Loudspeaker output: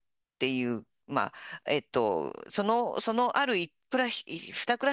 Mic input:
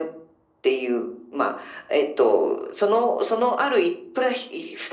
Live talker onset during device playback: none

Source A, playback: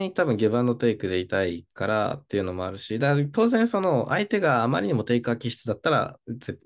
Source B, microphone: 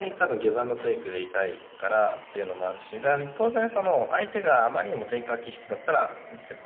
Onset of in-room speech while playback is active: none

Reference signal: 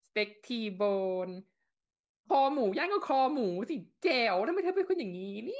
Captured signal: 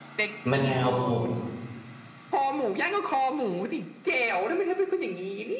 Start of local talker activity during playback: 0.5 s

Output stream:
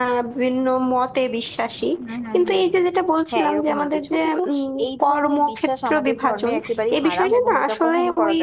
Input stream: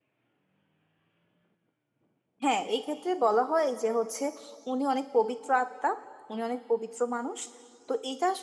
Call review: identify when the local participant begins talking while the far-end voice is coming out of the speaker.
2.4 s

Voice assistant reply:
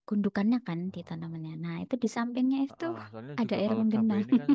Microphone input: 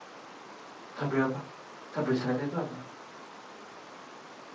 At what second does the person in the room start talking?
1.0 s

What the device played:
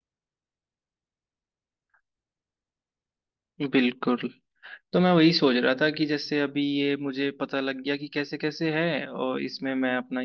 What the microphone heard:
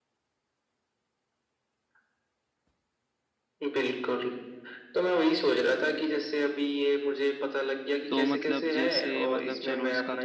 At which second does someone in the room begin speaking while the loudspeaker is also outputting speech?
8.1 s

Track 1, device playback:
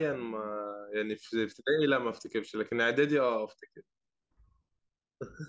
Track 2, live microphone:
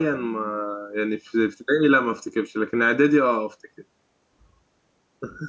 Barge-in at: none

